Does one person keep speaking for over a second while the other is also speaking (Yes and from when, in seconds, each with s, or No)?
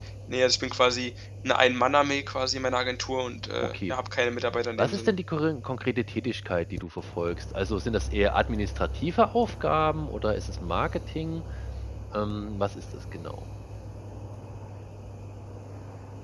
No